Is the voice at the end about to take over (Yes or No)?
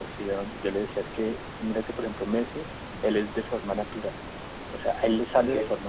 No